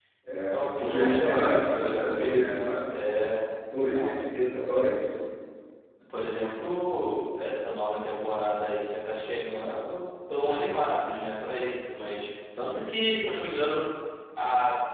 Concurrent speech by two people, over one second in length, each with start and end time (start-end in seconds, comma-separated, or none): 0.5-3.2